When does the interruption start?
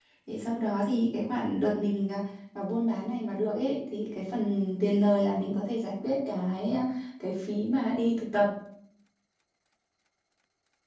none

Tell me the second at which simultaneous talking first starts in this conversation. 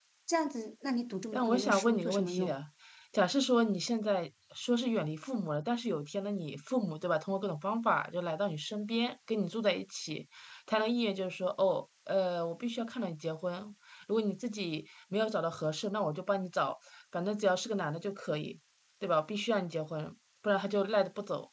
1.3 s

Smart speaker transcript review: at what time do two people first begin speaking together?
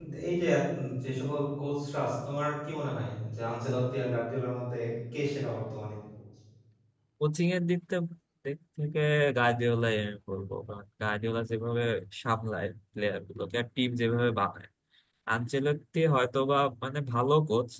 none

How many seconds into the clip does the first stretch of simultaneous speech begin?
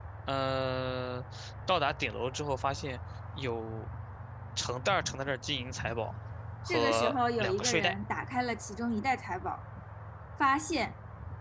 6.7 s

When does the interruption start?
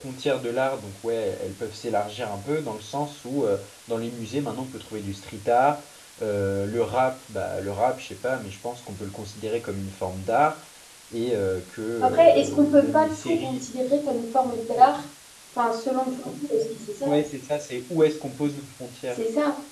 12.0 s

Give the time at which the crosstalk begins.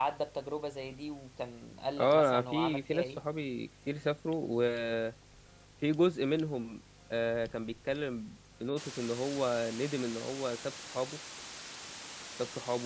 2.0 s

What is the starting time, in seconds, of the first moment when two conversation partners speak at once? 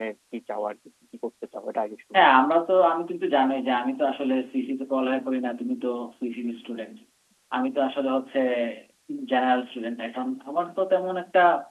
none

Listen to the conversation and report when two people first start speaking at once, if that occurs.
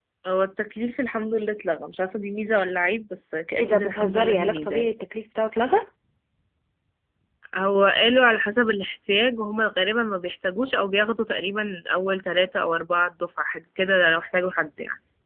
3.6 s

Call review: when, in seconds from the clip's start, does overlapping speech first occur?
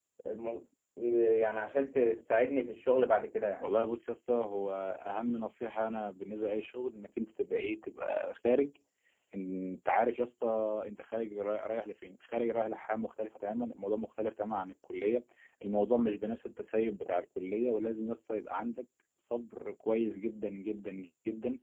none

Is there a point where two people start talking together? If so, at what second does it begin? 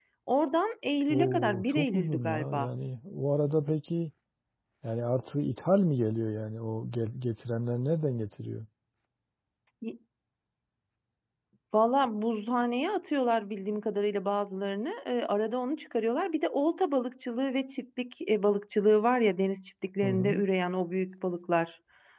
1.1 s

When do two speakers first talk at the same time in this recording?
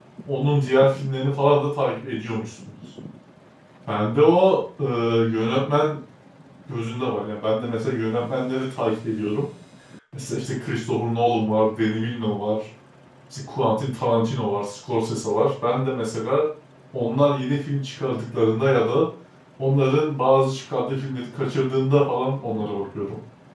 none

